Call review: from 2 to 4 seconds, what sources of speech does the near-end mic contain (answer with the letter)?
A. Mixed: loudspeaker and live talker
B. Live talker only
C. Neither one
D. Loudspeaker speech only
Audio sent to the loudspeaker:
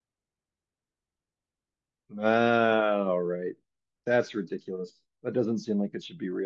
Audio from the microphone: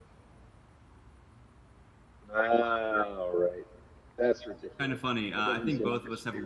D